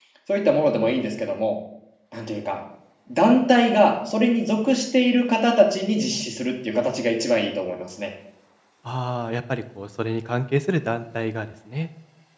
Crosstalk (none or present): none